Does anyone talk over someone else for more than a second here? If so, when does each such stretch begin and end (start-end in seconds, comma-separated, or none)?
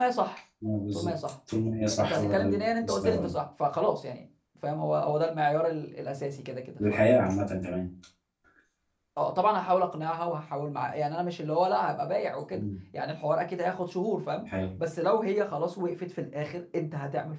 2.0-3.3